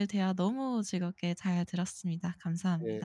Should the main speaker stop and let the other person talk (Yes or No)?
Yes